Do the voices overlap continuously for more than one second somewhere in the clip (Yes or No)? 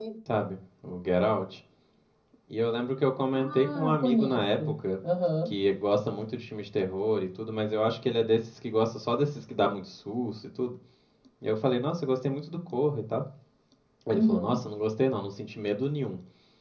Yes